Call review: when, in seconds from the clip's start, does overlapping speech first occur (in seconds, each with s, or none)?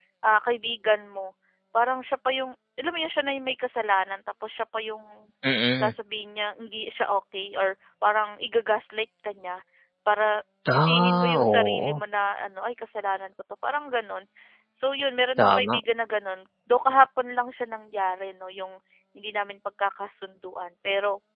10.7 s